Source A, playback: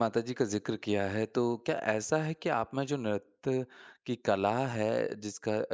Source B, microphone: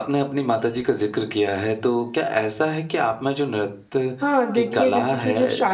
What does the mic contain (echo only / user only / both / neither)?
both